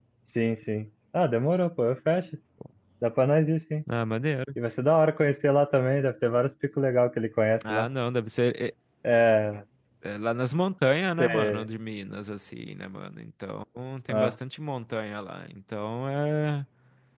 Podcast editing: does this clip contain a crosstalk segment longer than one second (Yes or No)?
No